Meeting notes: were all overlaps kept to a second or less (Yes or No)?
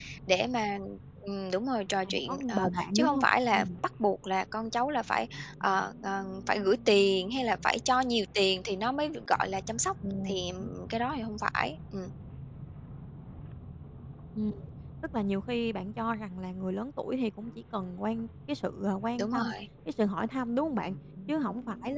No